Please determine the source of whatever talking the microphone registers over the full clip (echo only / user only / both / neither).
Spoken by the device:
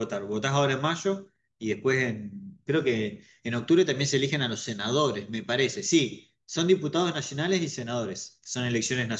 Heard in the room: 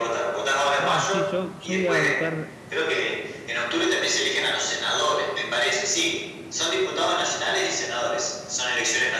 both